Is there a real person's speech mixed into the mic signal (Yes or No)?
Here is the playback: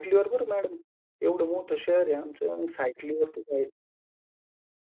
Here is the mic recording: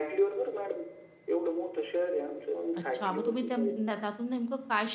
Yes